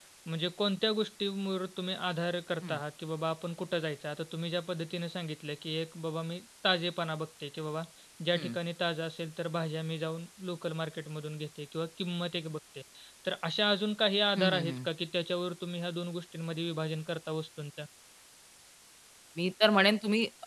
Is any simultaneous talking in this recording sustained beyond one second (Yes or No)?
No